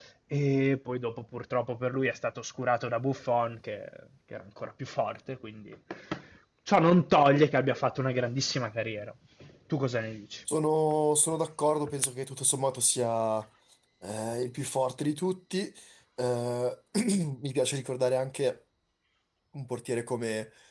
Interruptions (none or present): none